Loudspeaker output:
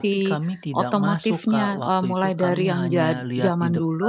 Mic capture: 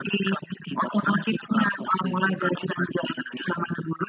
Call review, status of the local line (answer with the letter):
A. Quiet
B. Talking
A